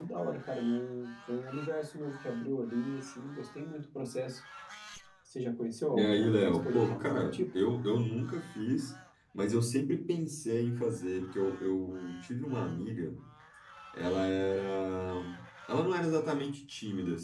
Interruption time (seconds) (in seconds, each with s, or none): 5.9 s